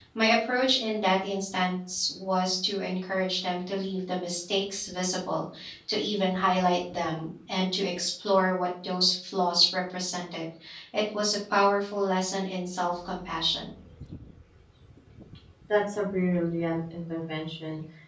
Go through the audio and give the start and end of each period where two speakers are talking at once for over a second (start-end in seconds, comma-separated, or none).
none